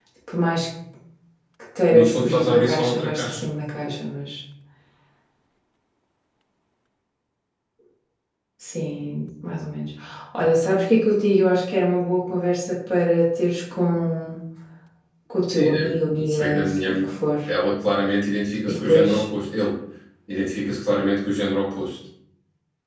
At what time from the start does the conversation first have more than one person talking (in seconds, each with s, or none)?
1.9 s